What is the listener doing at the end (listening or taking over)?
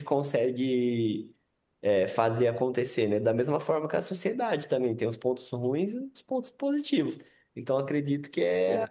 listening